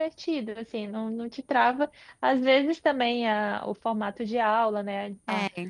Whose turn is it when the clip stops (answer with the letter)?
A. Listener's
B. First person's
B